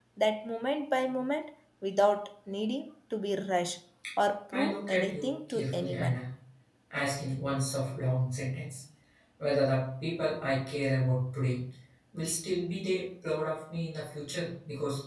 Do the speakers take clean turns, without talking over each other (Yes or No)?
No